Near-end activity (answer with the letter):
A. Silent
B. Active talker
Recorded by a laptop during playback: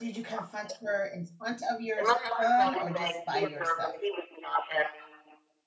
B